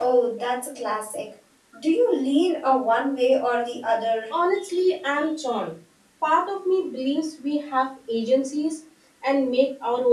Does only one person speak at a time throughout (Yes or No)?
Yes